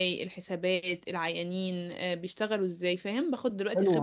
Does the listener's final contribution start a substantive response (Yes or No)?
Yes